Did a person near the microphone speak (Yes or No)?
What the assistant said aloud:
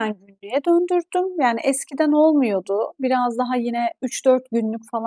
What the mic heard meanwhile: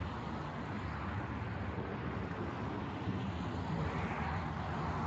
No